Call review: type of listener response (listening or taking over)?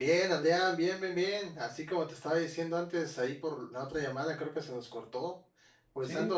listening